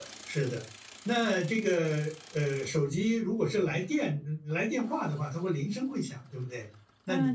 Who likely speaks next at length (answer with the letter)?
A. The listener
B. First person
A